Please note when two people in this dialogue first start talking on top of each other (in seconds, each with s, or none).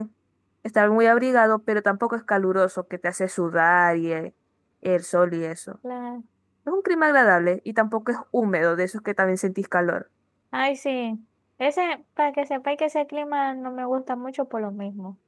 none